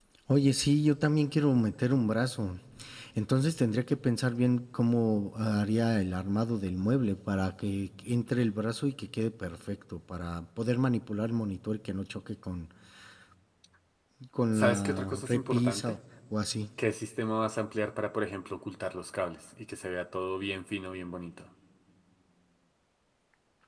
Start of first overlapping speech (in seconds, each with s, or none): 14.5 s